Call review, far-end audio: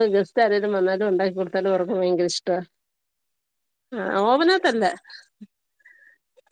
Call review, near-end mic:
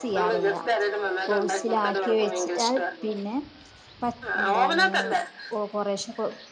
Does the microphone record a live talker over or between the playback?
Yes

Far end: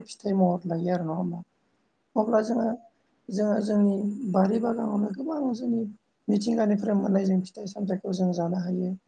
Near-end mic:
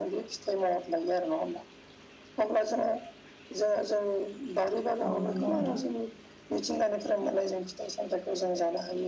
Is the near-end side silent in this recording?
No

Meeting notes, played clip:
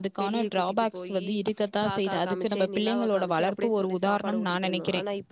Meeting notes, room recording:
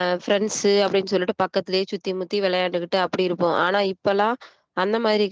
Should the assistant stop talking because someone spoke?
Yes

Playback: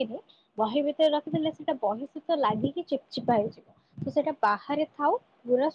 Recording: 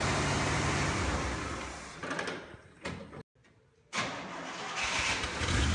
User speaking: No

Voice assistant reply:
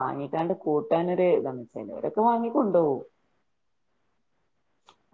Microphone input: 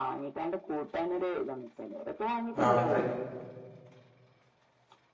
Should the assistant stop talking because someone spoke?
Yes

